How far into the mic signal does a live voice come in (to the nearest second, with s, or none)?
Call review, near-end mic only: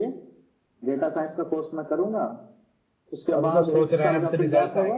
3 s